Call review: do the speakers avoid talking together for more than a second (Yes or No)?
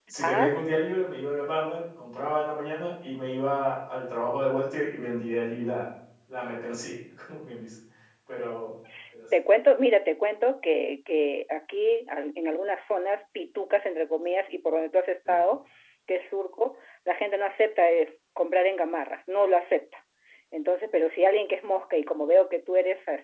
Yes